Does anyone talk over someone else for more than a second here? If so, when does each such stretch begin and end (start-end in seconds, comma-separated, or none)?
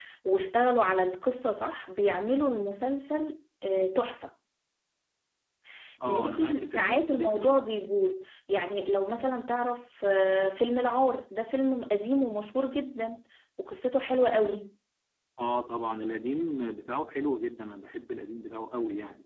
6.1-7.6